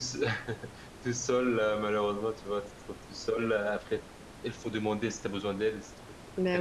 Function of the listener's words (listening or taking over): listening